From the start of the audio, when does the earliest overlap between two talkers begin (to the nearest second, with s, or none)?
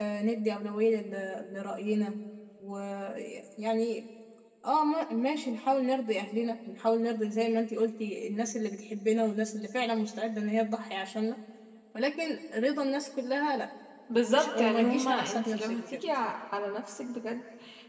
14 s